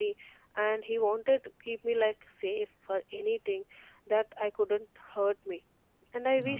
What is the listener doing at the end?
listening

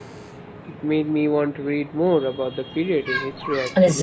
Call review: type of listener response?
taking over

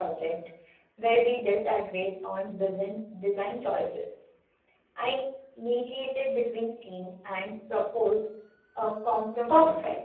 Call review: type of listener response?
taking over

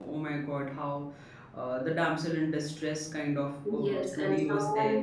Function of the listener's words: taking over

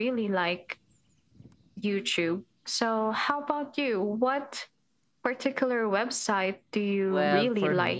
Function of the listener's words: taking over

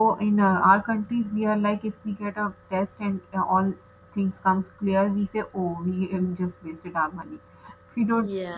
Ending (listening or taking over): listening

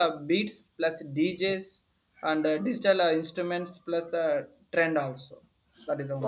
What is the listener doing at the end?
taking over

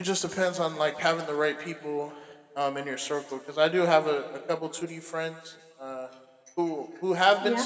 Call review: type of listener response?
listening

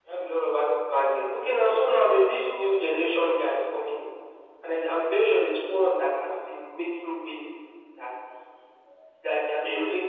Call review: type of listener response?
listening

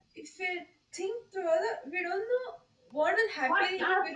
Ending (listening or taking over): taking over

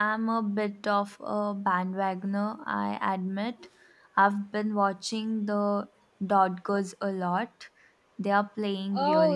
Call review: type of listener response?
taking over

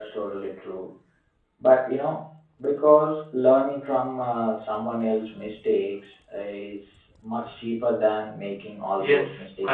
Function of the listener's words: taking over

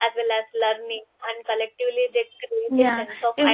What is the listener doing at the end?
taking over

